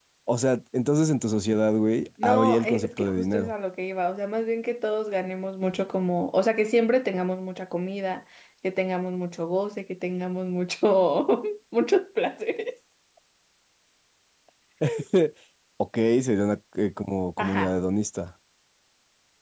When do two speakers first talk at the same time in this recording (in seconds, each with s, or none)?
2.2 s